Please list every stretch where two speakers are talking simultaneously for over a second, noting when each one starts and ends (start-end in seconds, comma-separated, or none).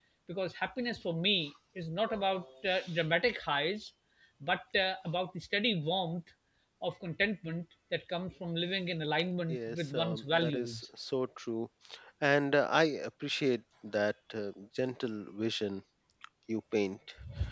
9.5-10.8